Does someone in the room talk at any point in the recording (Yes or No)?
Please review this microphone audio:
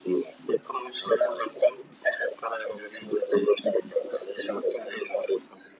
No